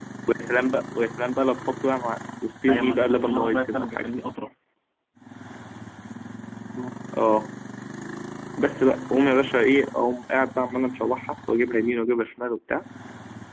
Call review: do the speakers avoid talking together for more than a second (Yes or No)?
No